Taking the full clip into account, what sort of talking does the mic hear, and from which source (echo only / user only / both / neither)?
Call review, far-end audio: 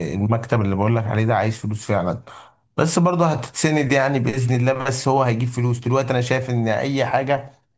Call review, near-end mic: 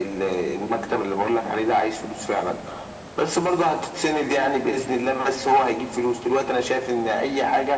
echo only